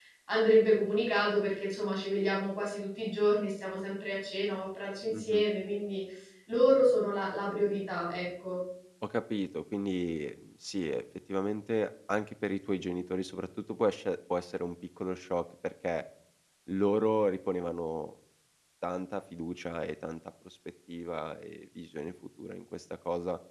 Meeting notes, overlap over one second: none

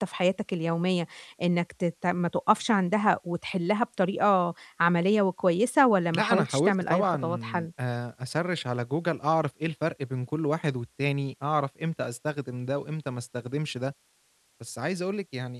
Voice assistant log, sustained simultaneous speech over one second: present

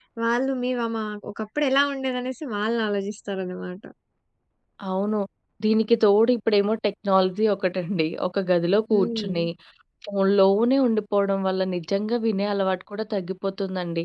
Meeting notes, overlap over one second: none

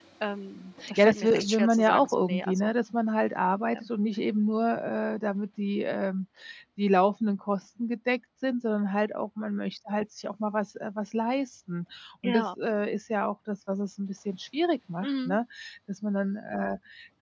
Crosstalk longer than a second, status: present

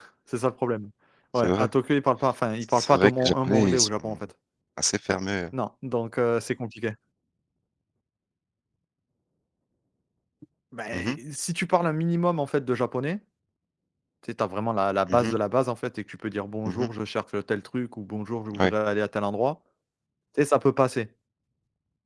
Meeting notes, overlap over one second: present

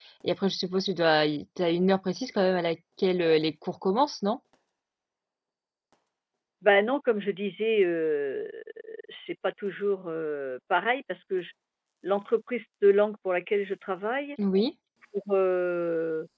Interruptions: none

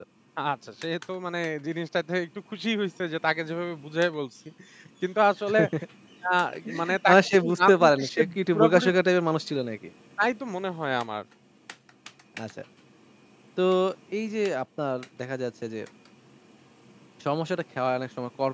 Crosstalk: present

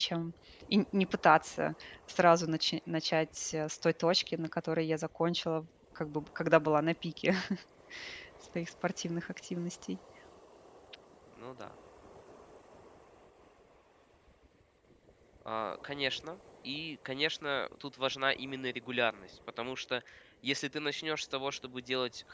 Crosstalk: none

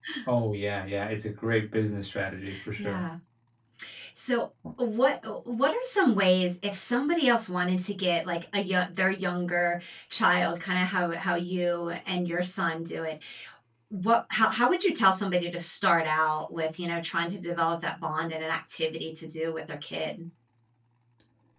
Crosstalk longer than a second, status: none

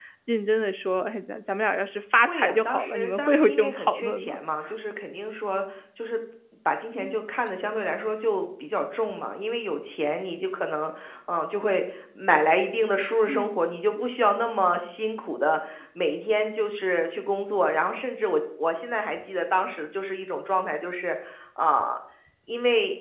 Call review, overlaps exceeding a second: present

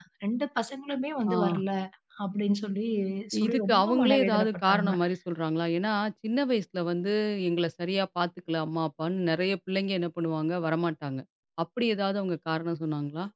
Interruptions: present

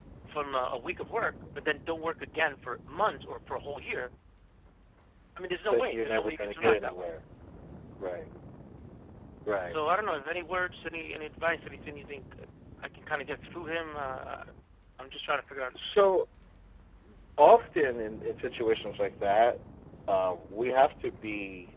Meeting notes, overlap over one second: present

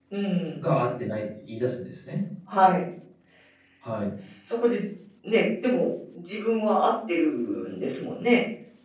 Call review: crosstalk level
none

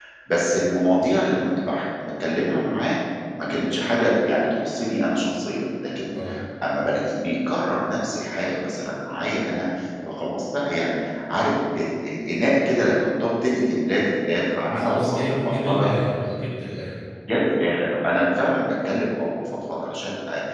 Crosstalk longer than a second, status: present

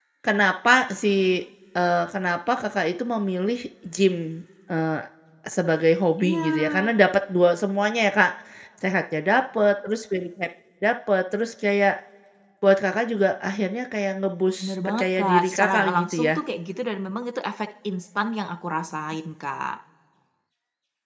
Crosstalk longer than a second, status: present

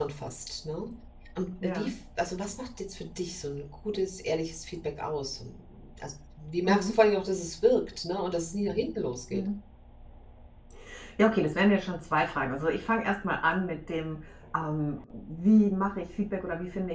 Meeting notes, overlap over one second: none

